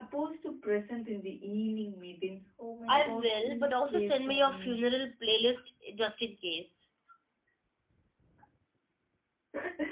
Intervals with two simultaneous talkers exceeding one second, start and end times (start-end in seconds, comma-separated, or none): 2.9-4.8